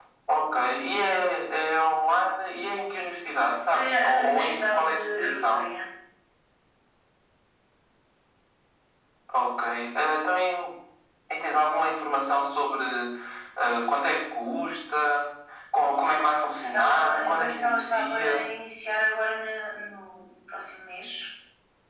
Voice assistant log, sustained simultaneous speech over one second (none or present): present